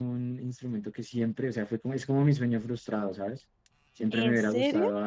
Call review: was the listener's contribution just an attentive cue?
Yes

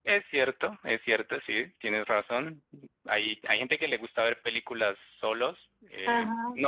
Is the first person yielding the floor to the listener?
No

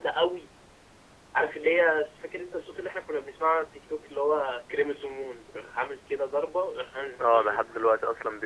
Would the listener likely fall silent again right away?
No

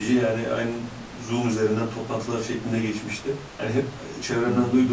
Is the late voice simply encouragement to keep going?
Yes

